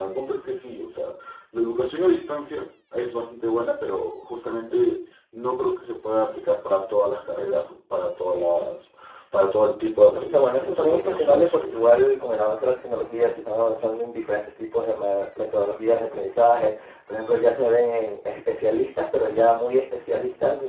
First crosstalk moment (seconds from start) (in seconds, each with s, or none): 10.2 s